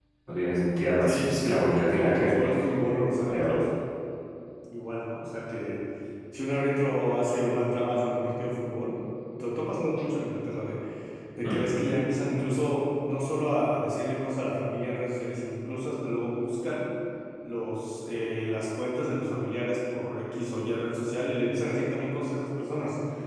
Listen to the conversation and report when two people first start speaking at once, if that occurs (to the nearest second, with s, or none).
1 s